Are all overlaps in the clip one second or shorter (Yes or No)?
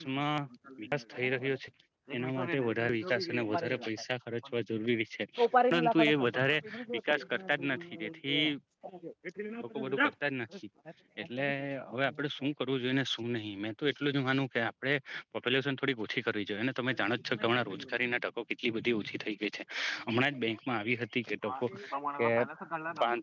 No